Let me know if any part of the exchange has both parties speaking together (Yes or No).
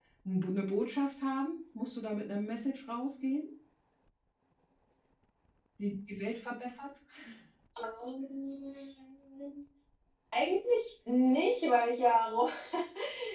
No